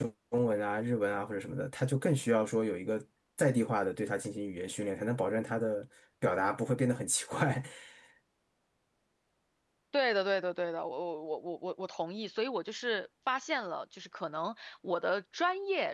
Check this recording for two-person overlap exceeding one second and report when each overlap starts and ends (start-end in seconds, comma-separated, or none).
none